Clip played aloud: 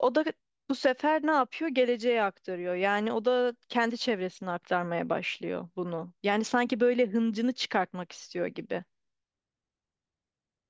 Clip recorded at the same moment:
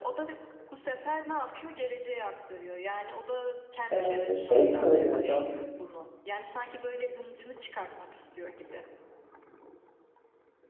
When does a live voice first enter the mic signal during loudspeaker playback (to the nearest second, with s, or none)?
4 s